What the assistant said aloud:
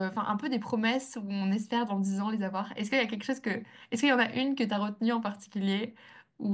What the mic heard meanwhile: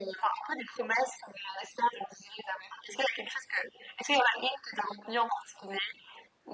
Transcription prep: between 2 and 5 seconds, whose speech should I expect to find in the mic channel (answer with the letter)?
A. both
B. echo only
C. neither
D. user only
B